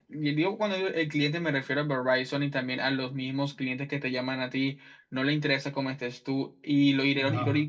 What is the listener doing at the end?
listening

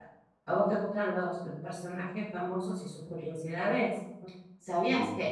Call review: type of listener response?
listening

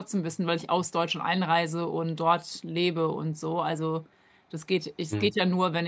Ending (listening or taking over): listening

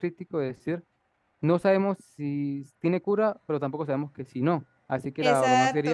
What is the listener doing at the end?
taking over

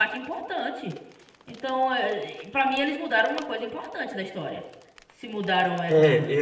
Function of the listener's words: taking over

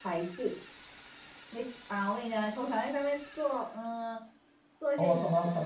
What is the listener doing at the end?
taking over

